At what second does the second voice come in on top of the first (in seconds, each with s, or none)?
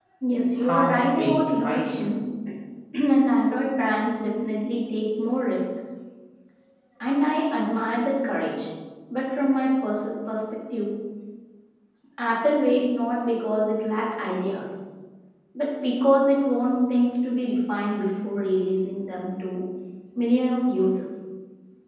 0.7 s